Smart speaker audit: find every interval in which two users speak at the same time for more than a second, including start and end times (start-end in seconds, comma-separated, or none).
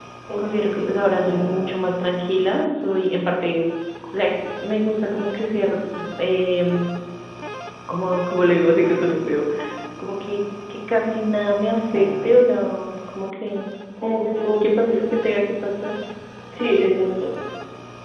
none